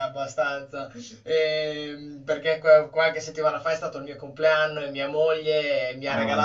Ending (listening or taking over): listening